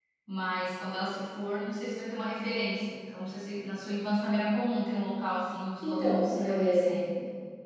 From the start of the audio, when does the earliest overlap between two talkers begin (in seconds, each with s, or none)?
5.8 s